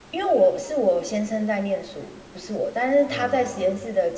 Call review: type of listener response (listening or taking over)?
listening